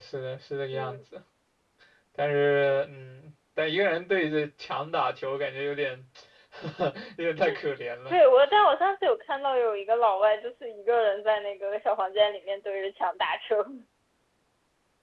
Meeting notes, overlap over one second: none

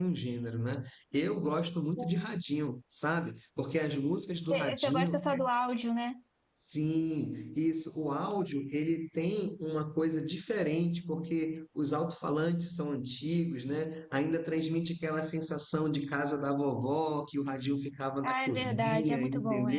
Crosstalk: present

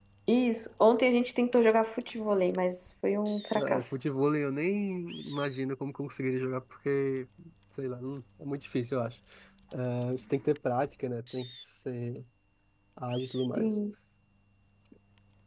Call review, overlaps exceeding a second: none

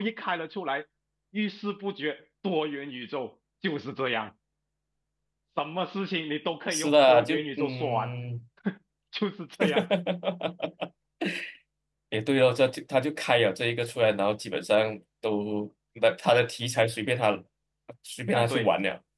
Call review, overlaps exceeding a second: present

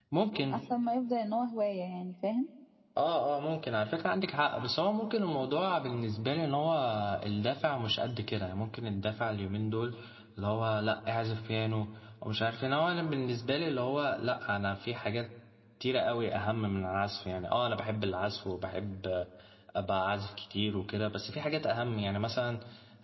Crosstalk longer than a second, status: none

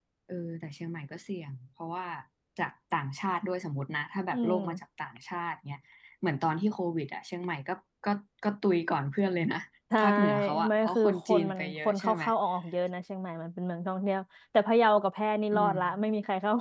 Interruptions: present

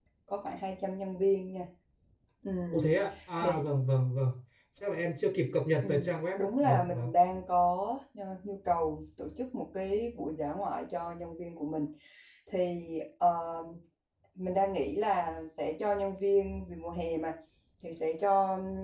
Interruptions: present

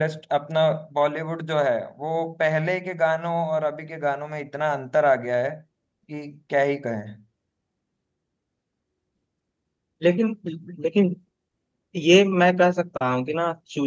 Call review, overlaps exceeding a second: none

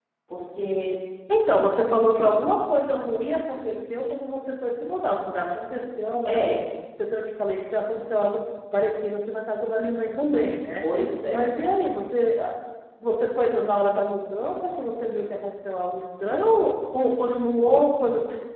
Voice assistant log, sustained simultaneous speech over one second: none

